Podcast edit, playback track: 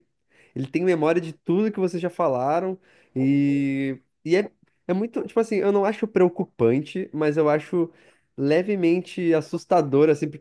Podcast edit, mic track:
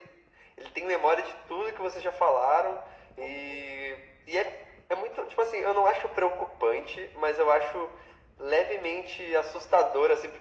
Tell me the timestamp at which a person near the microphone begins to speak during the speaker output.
none

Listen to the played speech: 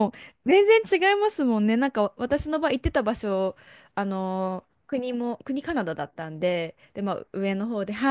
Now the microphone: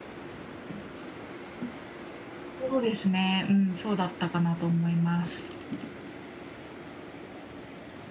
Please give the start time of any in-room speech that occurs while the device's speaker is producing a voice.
2.6 s

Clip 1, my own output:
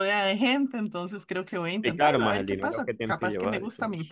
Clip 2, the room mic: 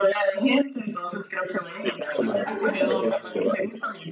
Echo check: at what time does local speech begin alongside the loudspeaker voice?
2.4 s

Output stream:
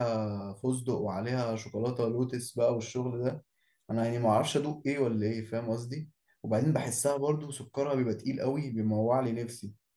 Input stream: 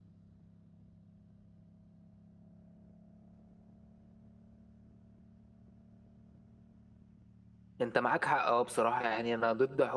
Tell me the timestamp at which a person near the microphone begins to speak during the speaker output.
7.8 s

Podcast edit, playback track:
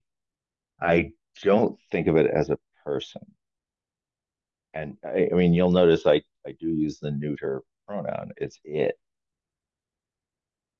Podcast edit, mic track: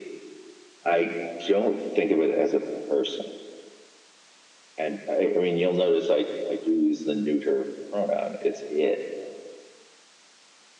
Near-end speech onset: none

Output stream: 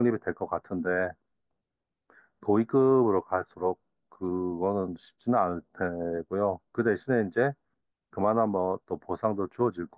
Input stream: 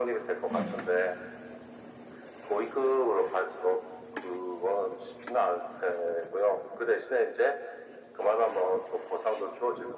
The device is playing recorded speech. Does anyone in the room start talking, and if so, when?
0.5 s

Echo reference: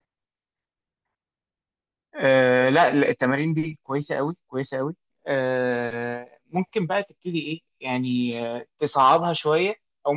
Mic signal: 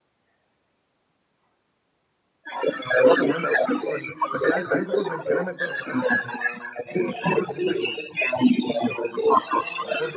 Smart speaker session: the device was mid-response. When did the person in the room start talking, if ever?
2.9 s

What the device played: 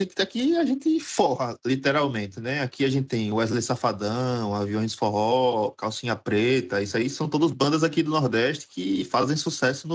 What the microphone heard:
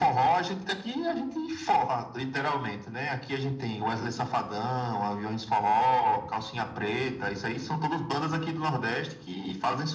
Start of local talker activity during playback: none

